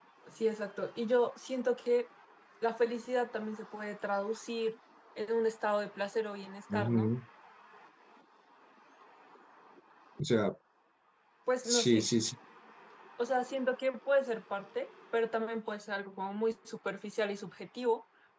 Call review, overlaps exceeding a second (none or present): none